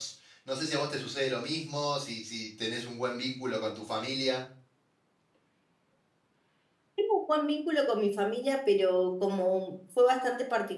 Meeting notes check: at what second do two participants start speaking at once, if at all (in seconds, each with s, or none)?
none